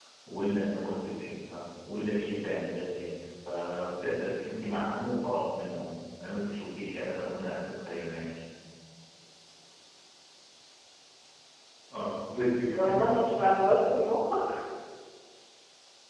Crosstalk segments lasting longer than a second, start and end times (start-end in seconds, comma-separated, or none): none